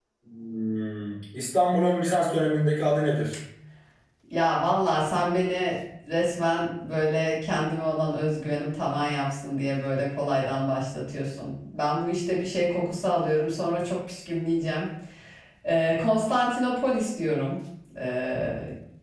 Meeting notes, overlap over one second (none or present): none